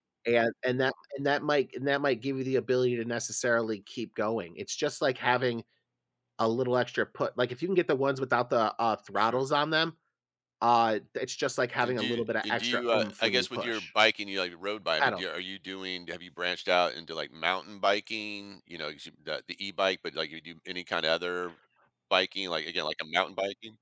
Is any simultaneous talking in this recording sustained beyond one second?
Yes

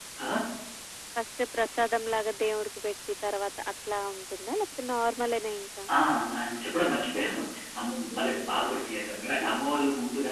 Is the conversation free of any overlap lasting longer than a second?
Yes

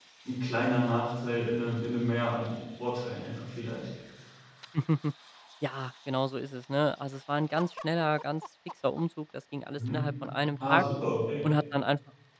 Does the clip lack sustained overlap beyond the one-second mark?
Yes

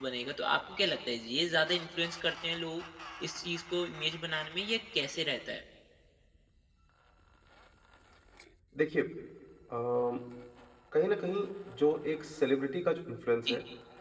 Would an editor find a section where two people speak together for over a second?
No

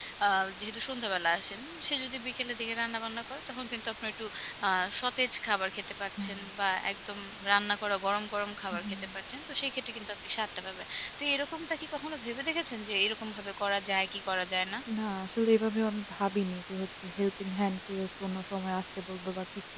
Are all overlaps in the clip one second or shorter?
Yes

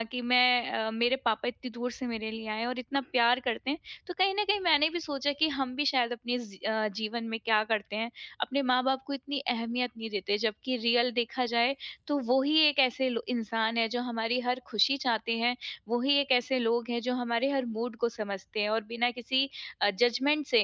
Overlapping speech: No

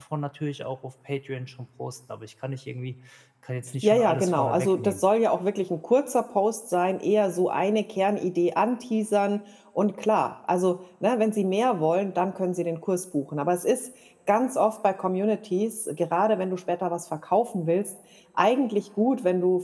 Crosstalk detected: Yes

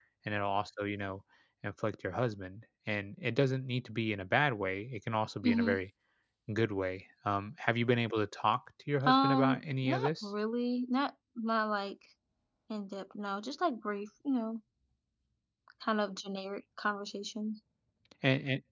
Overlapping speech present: Yes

